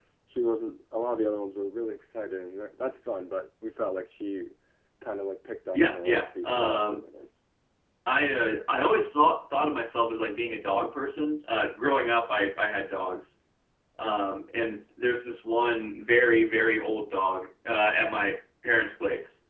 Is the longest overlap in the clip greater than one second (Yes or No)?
Yes